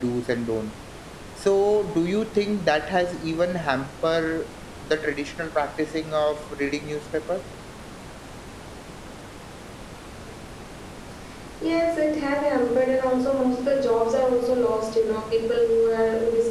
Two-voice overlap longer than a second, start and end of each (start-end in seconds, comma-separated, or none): none